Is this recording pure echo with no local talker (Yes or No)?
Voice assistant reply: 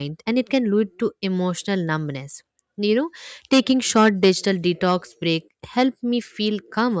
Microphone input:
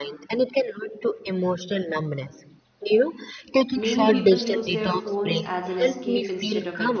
No